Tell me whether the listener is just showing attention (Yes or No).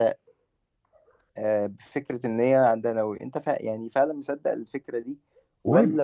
Yes